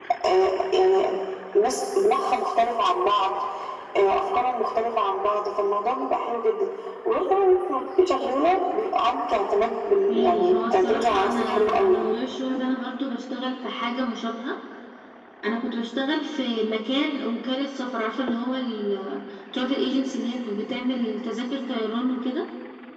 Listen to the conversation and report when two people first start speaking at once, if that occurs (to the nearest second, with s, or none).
10 s